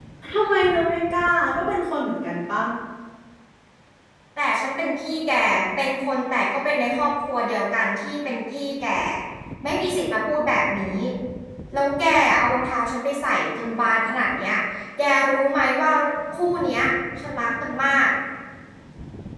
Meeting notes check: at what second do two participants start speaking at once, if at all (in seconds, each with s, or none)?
none